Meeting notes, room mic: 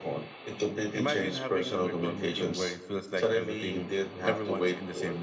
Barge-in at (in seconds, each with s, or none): 0.9 s